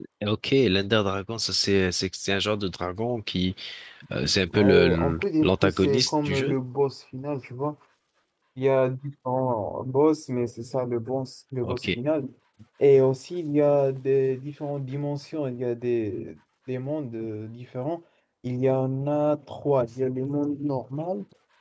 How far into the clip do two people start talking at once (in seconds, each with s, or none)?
4.6 s